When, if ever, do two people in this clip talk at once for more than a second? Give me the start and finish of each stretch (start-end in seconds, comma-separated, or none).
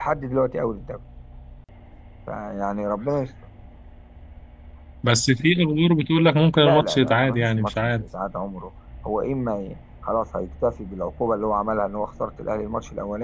6.6-8.0